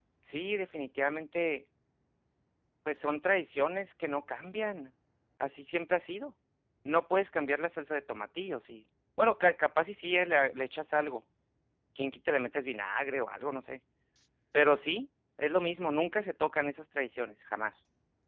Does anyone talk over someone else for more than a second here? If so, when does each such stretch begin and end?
none

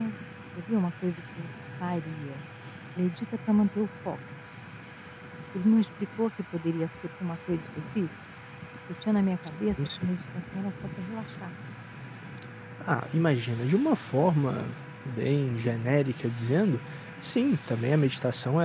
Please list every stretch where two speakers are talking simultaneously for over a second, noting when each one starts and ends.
none

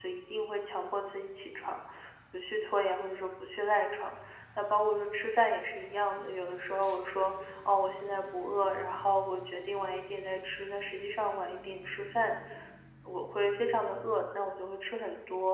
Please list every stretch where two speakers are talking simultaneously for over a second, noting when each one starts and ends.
none

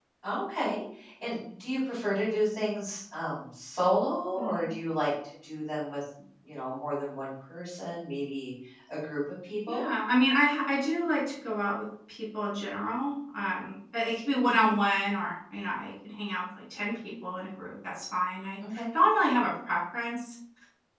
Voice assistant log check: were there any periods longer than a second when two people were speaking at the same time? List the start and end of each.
none

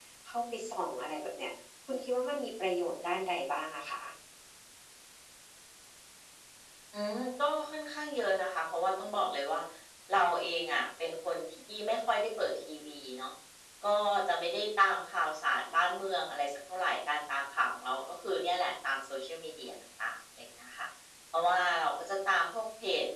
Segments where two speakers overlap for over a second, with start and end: none

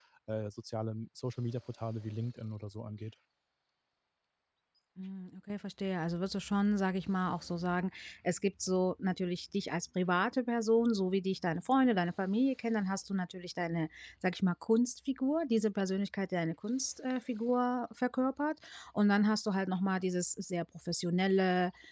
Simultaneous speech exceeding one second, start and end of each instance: none

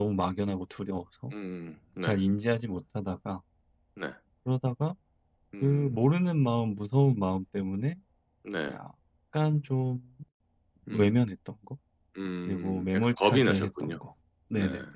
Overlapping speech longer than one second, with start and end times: 12.5-14.0

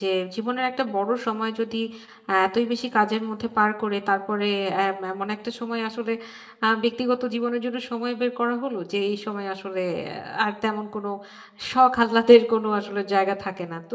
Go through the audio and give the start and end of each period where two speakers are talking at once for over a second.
none

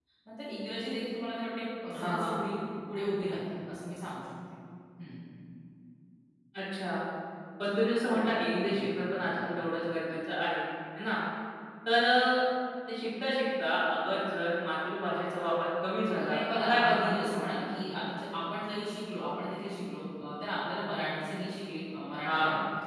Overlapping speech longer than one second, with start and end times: 16.1-17.4

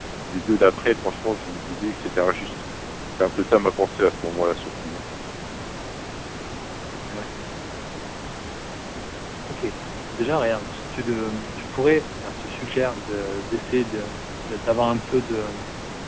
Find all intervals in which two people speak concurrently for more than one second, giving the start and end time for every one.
none

